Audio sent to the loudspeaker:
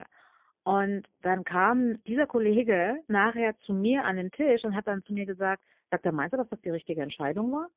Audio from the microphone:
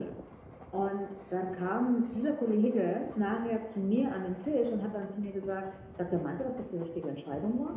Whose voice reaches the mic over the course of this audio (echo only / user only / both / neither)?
echo only